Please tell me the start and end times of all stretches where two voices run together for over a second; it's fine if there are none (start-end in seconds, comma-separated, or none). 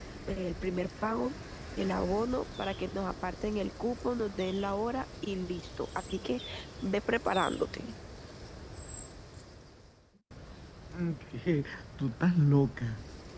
none